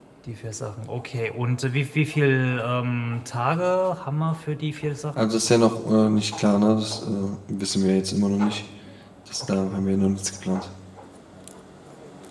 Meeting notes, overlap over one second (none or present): none